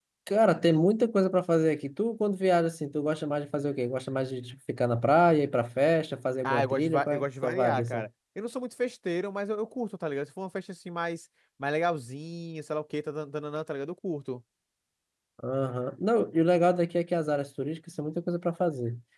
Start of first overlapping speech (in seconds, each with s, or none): 6.4 s